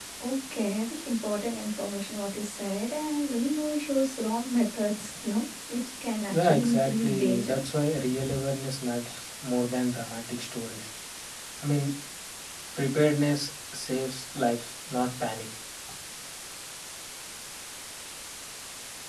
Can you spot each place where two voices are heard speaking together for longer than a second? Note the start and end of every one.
6.3-7.6

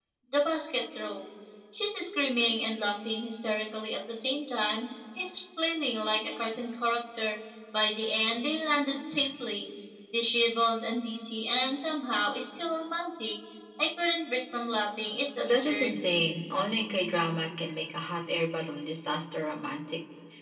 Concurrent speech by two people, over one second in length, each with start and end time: none

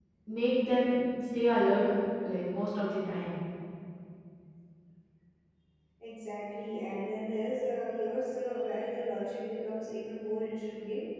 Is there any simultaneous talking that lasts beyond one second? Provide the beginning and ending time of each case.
none

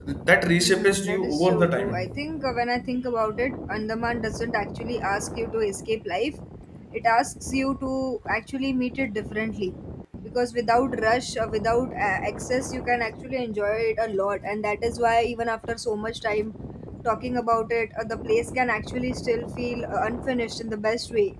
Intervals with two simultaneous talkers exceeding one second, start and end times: 0.6-1.9

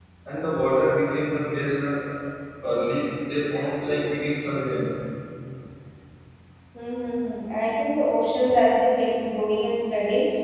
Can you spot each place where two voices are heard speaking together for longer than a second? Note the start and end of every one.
none

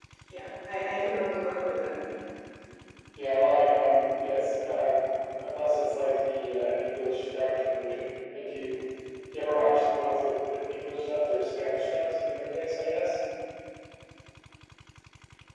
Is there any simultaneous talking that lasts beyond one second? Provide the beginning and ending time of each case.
none

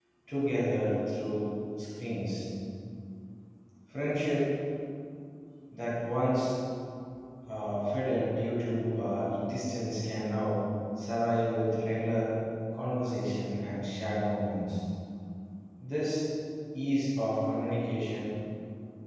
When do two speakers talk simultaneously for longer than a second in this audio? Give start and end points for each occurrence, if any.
none

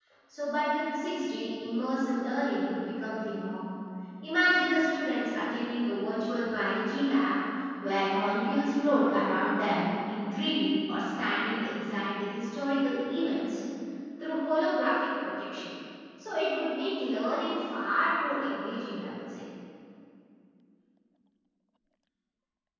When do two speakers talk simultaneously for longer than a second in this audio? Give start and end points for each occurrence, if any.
none

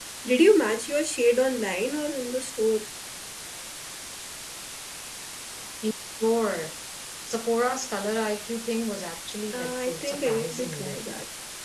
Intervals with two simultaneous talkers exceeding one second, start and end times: 9.5-11.0

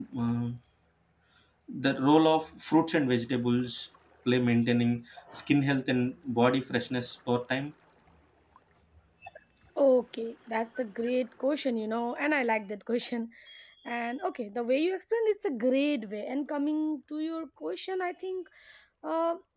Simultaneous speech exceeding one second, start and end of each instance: none

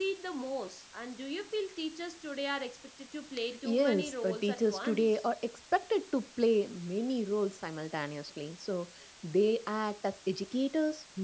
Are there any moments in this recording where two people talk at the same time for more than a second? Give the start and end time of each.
3.6-5.2

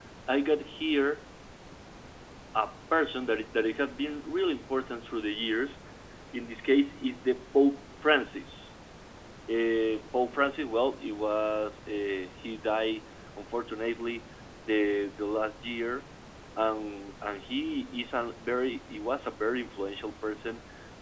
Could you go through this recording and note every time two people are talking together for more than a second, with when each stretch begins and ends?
none

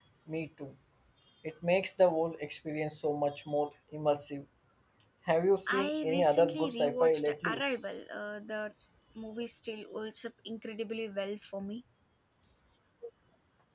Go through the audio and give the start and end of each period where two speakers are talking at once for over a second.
5.7-7.6

